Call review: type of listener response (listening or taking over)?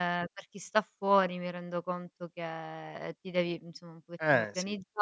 listening